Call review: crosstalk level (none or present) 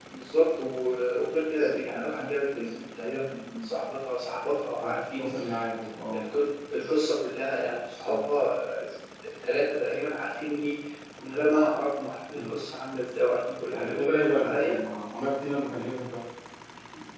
present